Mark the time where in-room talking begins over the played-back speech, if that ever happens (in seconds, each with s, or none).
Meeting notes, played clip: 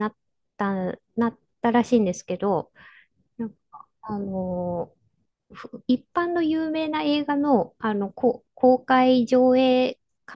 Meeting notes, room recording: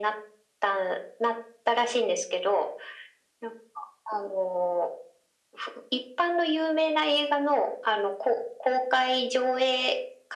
none